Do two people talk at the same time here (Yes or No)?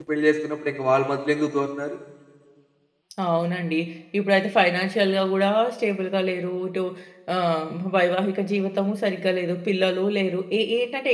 No